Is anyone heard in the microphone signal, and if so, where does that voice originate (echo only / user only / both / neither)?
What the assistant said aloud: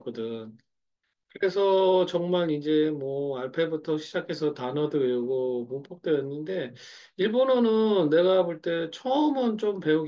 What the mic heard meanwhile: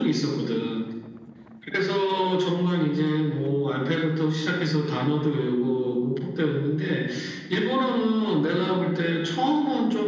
echo only